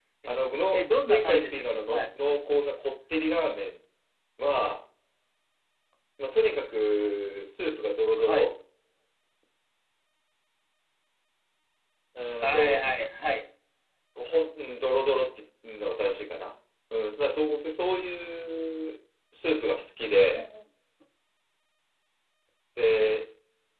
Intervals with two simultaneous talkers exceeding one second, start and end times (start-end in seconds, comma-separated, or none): 0.7-2.0